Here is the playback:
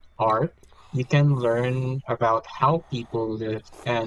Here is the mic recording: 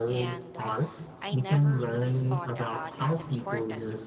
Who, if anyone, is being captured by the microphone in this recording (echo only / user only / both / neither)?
both